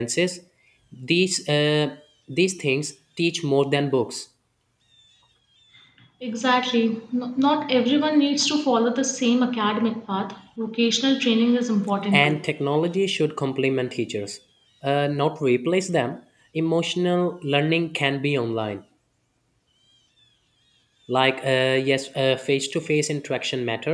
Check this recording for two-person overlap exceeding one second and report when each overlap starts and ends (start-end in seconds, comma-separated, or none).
none